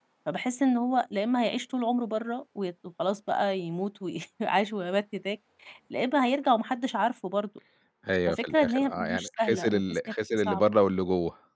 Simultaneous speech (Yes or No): Yes